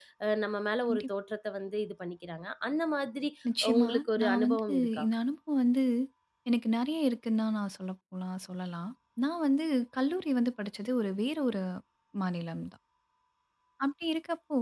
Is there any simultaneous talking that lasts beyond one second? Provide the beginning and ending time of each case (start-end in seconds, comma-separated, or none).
3.8-5.0